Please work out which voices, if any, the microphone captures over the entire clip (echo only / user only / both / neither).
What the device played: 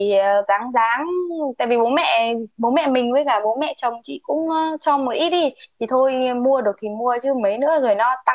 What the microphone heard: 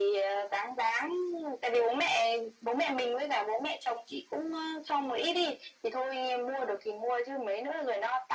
echo only